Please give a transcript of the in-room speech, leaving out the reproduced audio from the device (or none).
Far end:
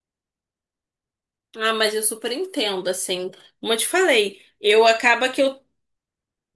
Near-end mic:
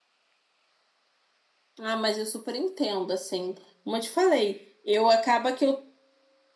none